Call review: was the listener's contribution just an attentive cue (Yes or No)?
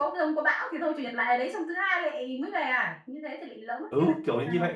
No